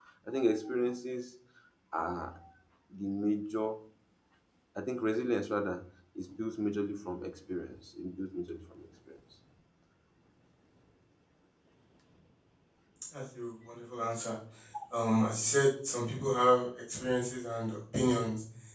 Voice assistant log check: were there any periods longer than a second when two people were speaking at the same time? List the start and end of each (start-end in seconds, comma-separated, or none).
none